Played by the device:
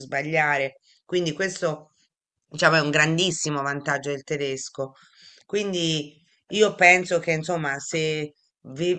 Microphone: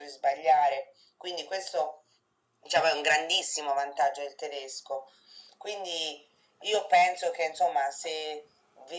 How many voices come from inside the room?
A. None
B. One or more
A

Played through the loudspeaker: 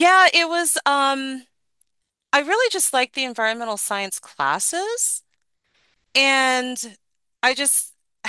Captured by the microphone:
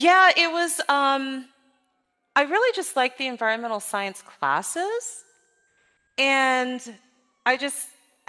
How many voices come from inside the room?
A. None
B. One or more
A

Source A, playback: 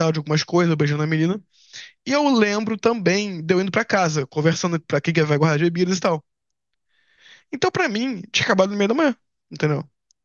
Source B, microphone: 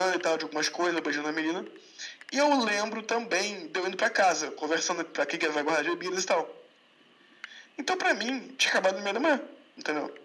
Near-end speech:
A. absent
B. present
A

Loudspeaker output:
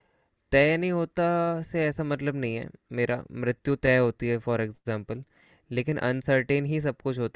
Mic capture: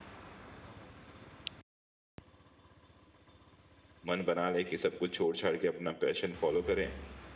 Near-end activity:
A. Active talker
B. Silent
A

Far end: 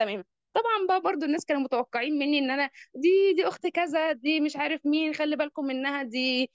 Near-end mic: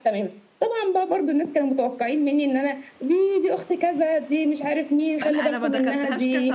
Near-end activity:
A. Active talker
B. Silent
A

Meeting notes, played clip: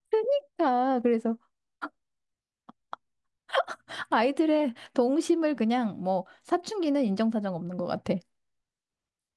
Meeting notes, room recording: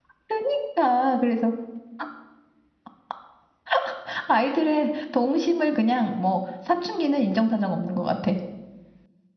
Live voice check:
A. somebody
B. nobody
B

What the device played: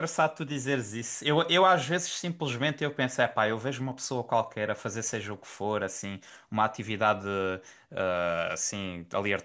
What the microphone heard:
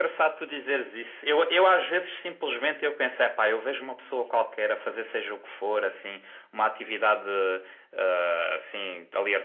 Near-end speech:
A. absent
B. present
A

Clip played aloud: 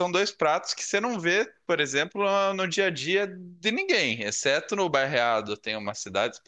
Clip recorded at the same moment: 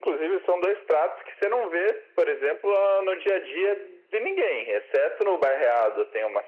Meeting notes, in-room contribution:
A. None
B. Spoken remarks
A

